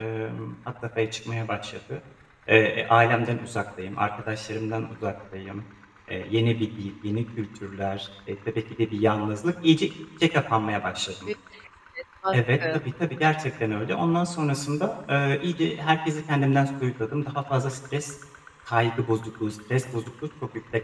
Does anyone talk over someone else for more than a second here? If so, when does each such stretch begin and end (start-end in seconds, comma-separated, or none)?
none